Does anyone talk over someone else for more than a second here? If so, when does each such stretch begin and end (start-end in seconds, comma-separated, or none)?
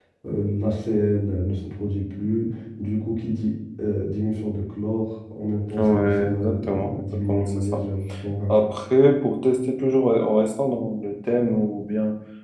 5.8-7.8